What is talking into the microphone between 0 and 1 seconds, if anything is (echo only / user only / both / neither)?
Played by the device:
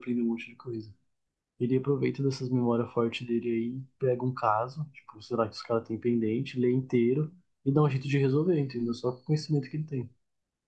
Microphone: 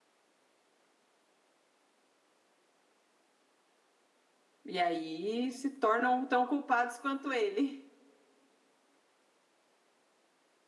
neither